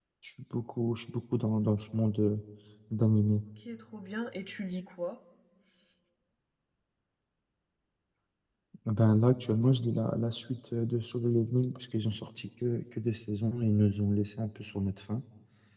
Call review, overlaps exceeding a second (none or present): none